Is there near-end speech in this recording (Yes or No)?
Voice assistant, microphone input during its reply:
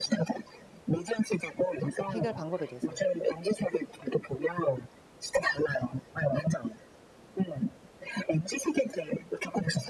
Yes